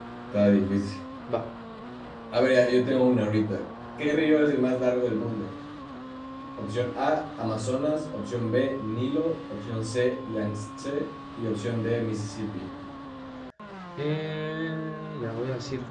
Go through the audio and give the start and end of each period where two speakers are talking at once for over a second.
none

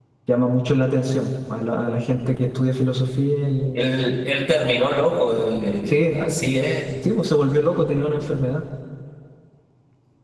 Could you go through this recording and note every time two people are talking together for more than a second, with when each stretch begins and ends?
none

